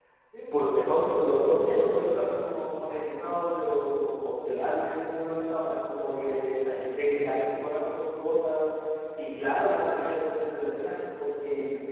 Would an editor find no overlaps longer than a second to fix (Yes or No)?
No